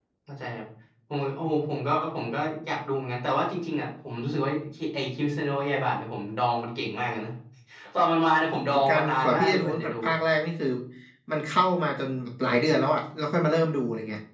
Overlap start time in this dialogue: 8.7 s

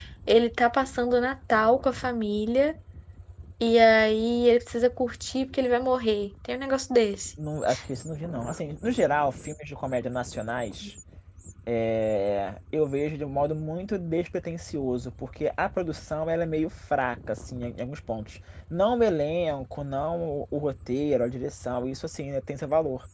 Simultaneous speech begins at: none

